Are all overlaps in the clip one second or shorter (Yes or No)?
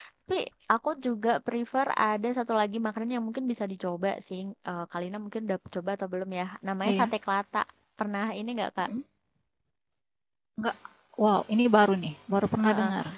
Yes